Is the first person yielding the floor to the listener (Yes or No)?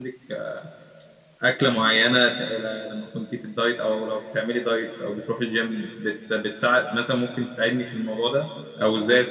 No